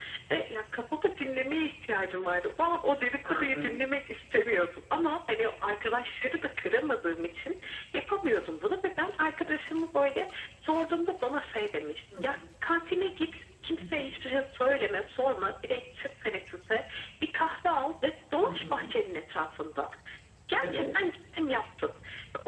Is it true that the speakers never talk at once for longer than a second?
Yes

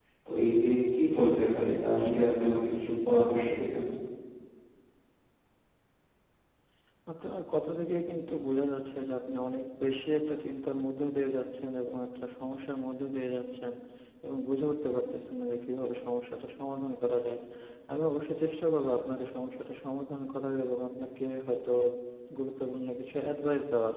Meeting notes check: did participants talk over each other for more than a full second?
No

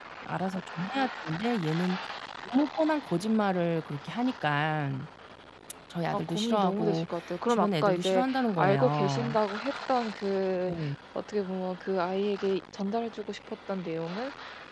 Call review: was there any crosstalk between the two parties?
Yes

